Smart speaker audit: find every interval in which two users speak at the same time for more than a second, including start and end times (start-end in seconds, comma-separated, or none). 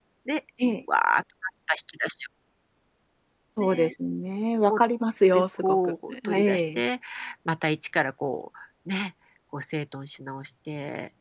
5.3-6.8